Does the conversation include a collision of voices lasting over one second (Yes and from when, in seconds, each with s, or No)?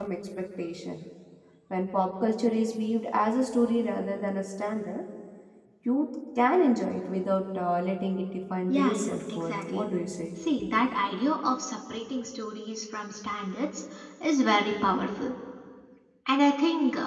Yes, from 8.7 s